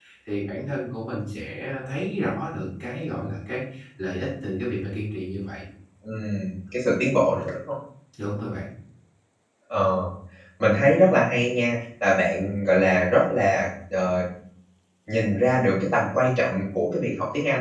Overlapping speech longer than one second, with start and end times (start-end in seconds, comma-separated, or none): none